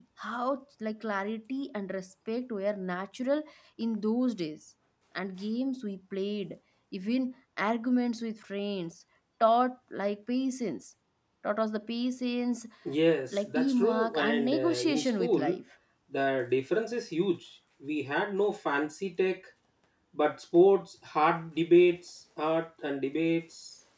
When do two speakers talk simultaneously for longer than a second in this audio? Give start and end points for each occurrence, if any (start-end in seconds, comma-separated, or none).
13.3-15.6